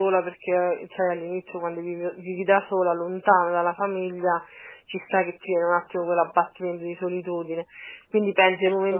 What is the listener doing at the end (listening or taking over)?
listening